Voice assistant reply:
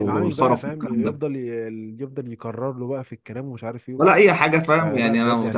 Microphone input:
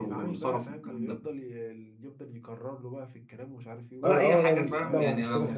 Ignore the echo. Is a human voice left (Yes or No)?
Yes